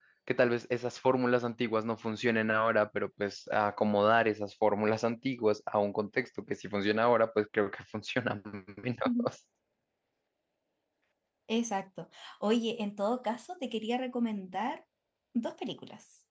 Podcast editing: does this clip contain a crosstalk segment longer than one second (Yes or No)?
No